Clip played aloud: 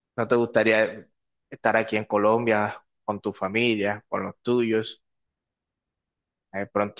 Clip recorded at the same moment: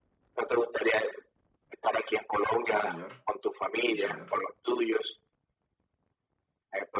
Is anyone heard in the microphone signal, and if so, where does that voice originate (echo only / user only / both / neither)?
both